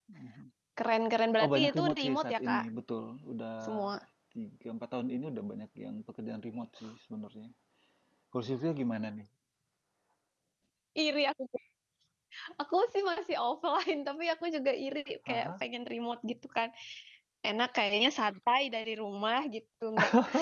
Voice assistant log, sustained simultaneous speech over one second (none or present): present